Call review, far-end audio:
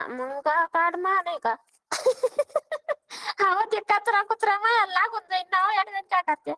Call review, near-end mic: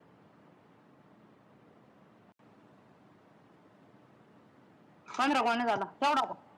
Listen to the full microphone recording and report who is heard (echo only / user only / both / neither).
user only